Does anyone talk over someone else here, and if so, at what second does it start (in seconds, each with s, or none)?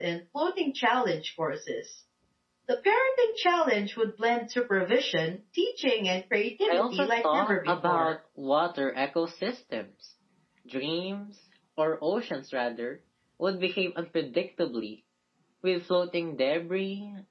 6.6 s